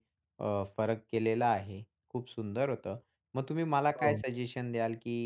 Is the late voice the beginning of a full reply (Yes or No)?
No